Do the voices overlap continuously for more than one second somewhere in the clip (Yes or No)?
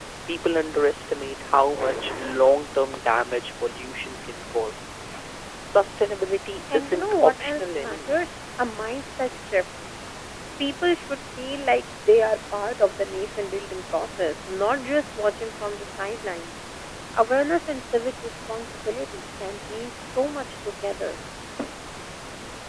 Yes